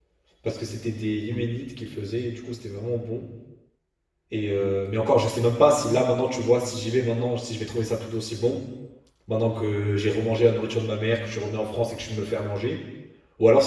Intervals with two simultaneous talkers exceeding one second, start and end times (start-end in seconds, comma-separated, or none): none